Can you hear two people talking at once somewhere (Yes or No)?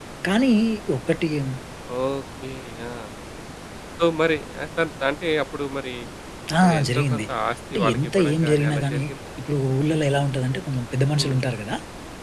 Yes